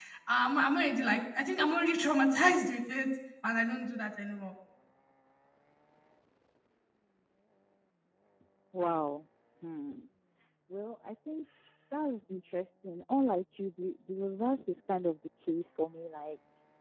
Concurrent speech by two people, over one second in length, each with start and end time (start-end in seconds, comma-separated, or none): none